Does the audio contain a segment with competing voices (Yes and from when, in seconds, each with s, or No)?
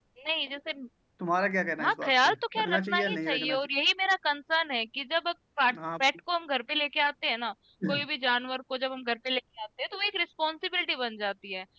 Yes, from 1.8 s